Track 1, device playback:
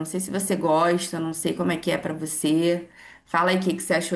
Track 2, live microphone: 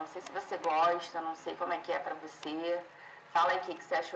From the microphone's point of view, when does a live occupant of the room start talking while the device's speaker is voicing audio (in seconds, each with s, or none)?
none